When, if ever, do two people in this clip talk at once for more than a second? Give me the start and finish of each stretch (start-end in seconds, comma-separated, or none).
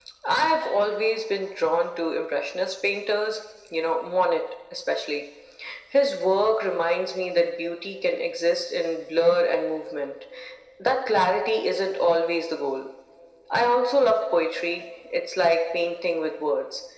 none